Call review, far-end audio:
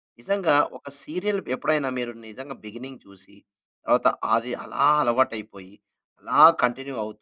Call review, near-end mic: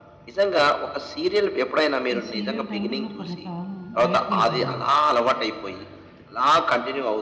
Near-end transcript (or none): ఈ సీరియల్ టైమ్‌లో నేను కొంతకాలం బయటికెళ్ళిపోయేవాడినండి.